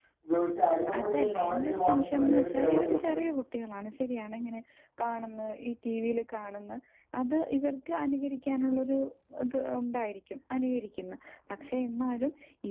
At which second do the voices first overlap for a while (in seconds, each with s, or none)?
1.0 s